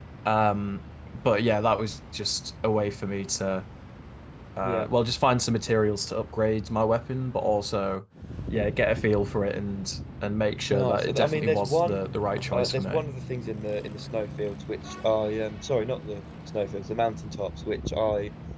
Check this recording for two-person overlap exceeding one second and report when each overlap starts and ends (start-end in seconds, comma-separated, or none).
10.7-12.0